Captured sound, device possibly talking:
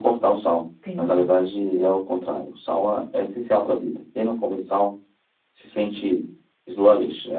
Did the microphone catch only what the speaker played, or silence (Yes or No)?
No